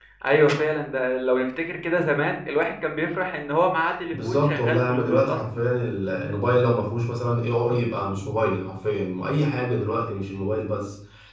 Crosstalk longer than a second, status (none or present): present